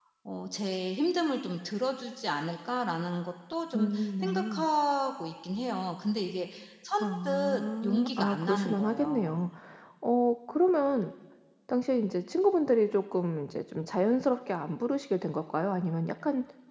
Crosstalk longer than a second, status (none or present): present